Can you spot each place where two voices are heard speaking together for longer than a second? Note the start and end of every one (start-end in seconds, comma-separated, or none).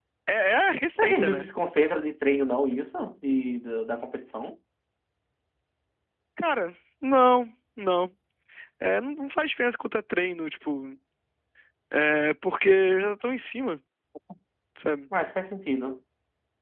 none